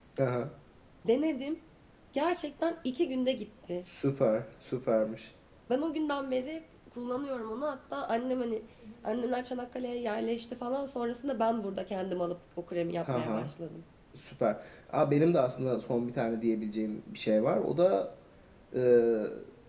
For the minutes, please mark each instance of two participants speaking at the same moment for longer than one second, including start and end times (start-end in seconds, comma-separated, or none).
none